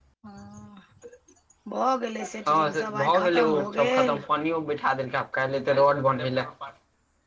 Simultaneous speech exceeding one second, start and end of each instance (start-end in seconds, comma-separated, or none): 2.5-4.2